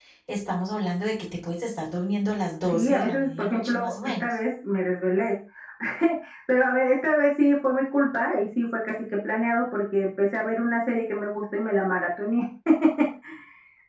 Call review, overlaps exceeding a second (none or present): present